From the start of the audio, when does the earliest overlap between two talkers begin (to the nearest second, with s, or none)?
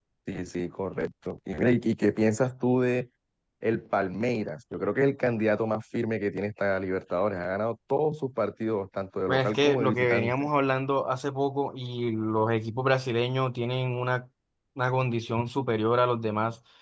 9 s